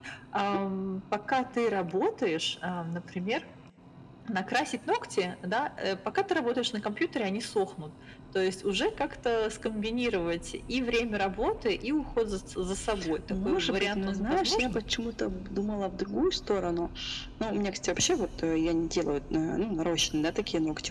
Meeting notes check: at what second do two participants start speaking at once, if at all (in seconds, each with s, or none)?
13.3 s